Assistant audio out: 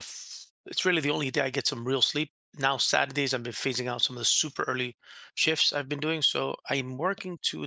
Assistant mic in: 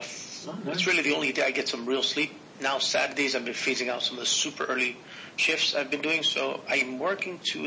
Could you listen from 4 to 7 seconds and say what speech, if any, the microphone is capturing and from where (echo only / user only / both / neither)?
echo only